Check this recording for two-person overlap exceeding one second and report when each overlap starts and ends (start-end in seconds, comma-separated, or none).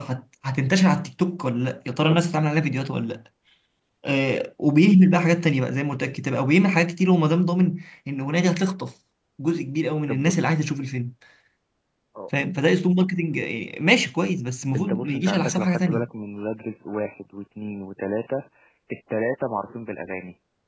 14.8-16.1